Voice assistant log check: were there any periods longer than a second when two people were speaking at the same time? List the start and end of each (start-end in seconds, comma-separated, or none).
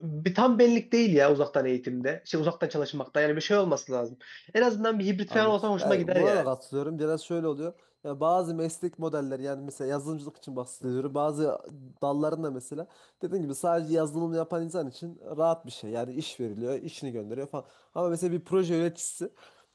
5.3-6.5